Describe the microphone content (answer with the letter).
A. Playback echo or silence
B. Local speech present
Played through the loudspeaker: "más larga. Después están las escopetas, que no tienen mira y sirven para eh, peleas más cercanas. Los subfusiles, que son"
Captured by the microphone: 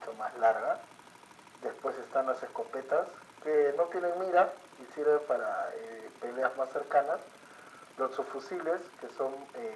A